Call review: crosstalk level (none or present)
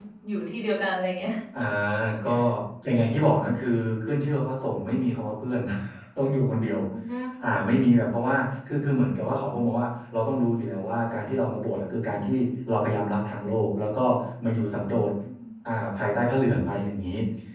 none